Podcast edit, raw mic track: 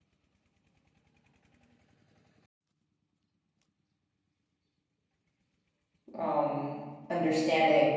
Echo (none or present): none